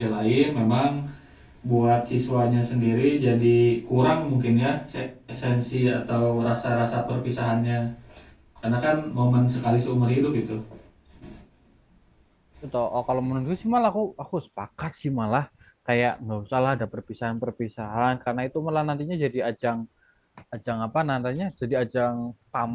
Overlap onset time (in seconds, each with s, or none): none